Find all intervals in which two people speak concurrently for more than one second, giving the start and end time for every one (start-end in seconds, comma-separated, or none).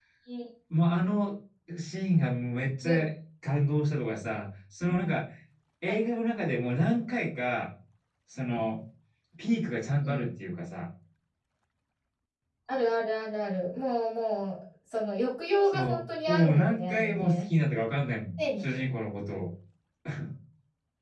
15.7-17.4